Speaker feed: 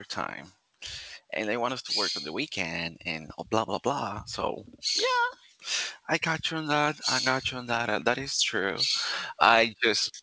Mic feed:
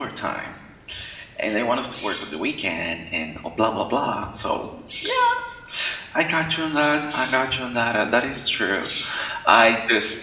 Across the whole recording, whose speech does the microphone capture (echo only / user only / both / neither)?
echo only